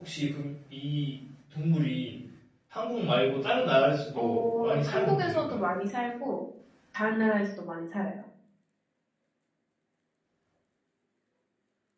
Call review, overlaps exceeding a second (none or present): present